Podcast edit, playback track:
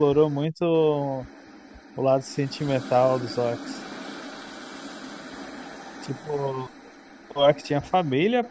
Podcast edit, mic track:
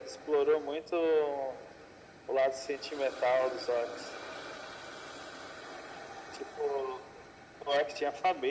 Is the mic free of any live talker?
Yes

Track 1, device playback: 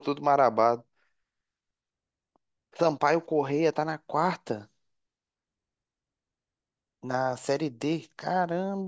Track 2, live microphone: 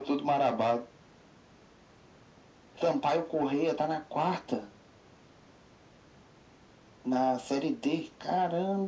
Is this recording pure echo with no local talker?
Yes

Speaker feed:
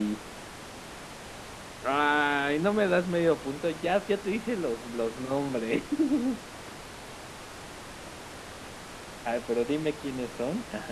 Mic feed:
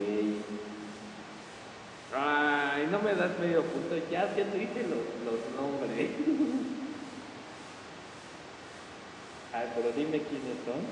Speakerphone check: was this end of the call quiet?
Yes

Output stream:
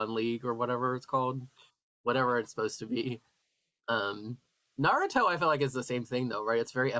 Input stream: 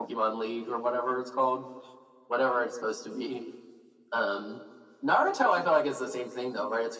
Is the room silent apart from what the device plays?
Yes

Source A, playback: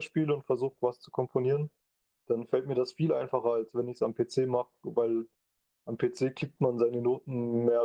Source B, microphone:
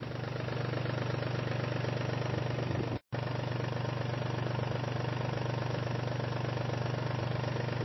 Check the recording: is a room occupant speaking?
No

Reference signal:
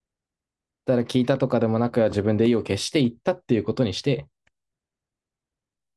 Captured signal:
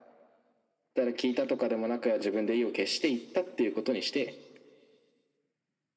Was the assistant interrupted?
No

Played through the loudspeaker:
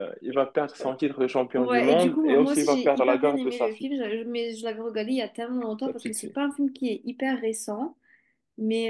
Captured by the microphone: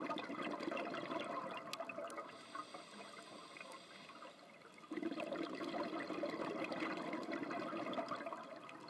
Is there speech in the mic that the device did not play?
No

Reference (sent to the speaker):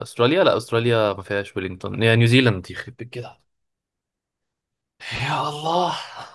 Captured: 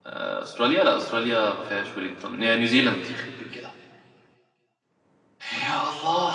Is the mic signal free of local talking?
Yes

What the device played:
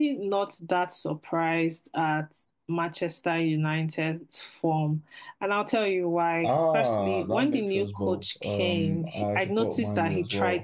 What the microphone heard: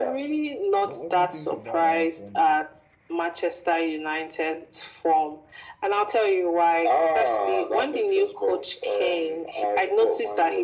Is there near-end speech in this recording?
Yes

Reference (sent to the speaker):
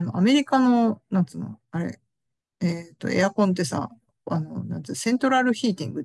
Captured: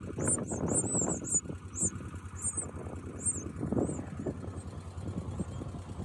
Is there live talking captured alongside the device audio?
No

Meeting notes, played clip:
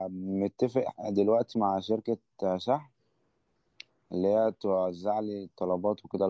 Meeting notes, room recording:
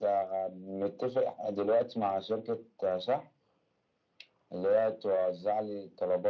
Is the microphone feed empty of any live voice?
Yes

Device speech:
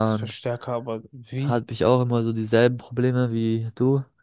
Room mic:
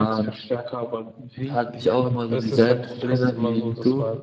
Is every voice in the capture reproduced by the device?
No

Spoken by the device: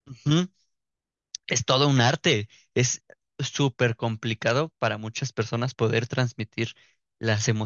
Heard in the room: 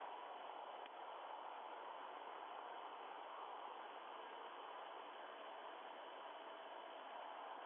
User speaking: No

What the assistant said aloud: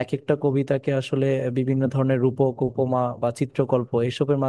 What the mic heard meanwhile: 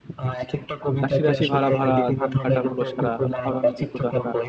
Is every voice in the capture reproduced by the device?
No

